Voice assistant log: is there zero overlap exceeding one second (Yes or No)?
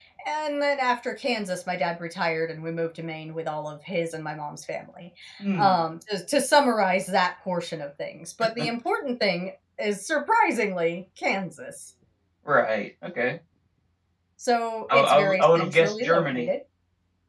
No